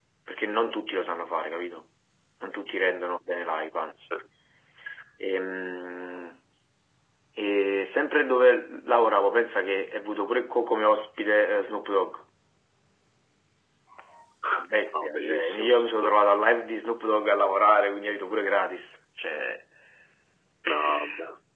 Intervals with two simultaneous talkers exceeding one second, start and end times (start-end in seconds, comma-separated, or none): 14.9-16.1